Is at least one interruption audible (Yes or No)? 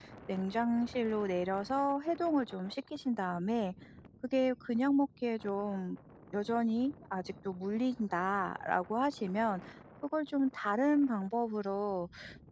No